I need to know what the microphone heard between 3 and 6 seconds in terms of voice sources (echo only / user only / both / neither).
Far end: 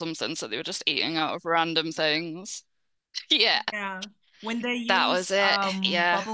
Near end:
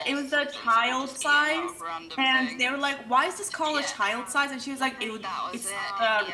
both